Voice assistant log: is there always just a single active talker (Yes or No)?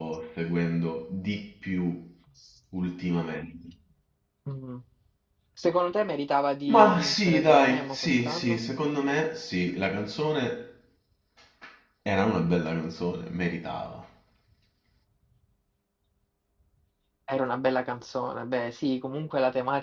No